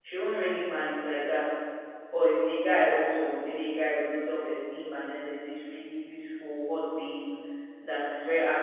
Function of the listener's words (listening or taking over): listening